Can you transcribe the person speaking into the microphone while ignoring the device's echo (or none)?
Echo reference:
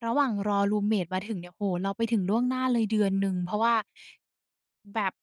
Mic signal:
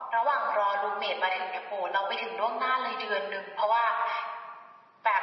none